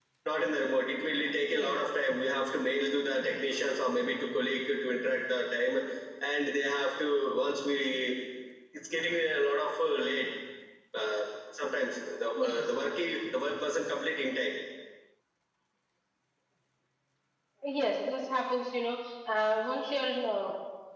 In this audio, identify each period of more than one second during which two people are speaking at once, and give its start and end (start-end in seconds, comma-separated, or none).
none